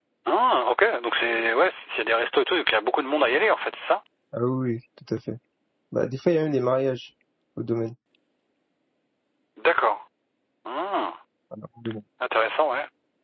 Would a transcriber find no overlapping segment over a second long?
Yes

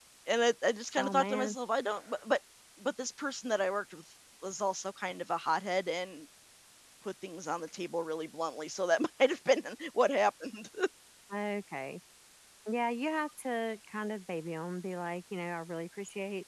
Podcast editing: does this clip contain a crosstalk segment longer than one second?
No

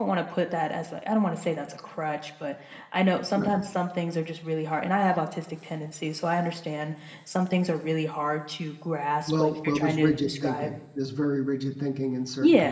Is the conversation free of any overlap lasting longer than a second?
No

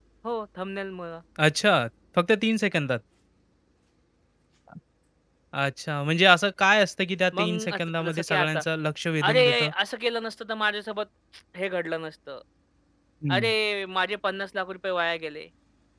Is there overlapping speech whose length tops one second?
Yes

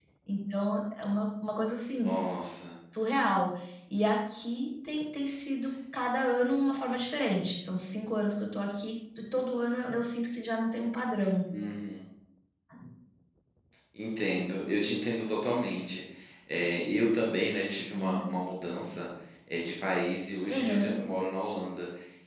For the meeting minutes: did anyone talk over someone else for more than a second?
No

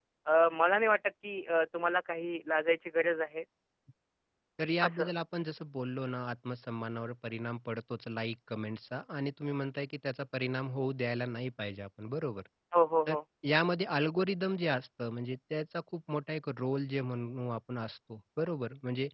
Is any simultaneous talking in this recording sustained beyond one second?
No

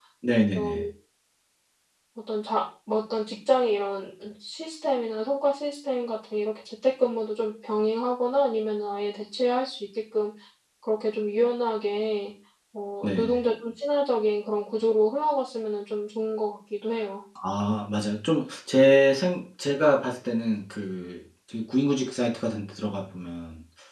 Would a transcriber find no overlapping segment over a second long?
Yes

